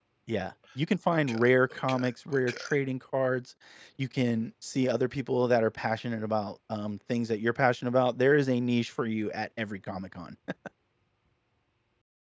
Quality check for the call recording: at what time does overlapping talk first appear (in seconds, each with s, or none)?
1.1 s